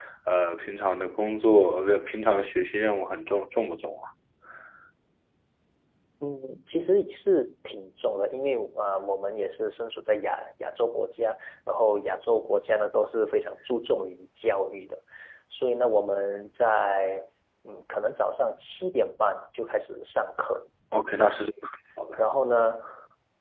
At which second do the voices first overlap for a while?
none

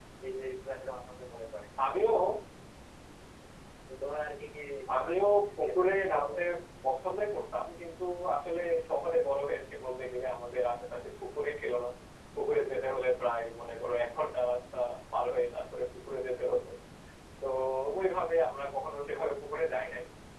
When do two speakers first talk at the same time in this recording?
5.1 s

